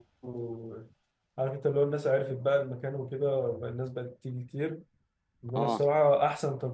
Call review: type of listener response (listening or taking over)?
listening